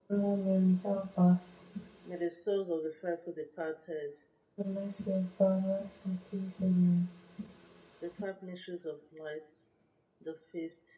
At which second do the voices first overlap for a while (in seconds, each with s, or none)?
none